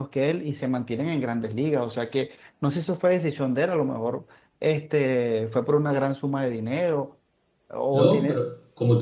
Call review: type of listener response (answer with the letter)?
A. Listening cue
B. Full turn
B